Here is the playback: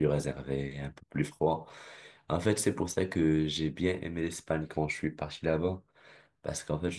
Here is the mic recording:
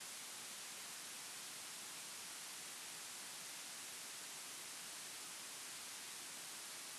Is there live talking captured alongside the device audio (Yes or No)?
No